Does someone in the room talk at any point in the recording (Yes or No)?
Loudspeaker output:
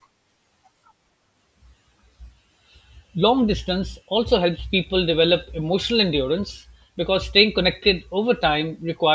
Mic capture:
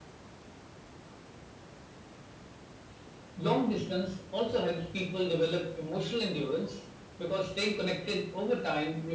No